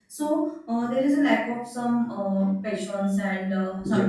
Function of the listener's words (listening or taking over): listening